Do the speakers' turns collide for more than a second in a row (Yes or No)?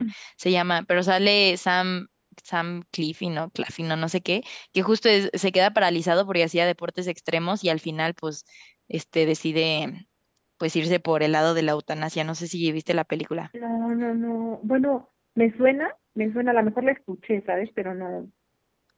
No